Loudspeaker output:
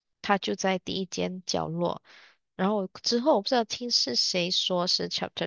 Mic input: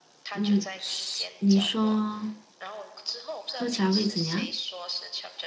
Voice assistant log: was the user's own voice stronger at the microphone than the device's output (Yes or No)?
Yes